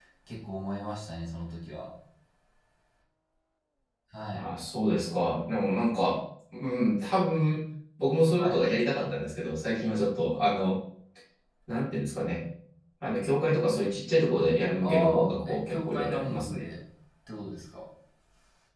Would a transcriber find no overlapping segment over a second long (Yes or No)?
No